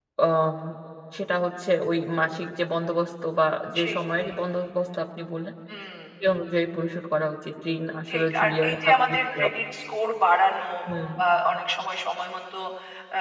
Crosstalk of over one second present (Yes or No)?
Yes